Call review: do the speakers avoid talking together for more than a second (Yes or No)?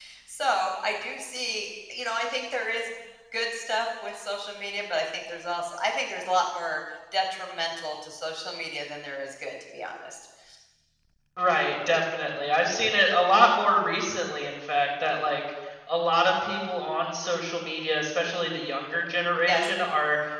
Yes